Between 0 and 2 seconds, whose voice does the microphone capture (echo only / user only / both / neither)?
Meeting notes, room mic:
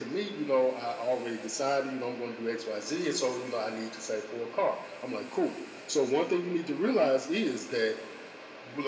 echo only